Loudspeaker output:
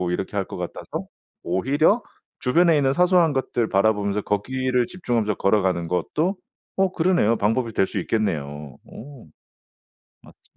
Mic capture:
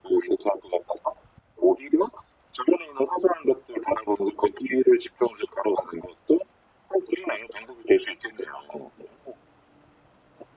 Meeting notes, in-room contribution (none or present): none